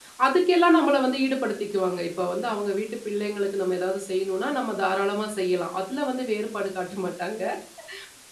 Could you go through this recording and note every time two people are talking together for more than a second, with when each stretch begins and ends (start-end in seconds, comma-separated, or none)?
none